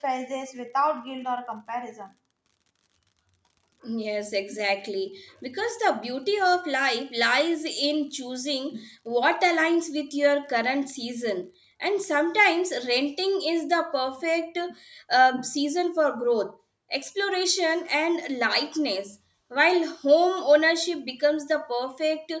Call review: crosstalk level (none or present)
none